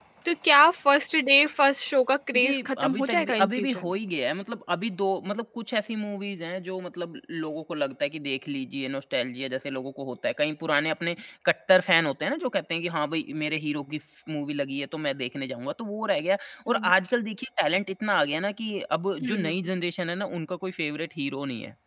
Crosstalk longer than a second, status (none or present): present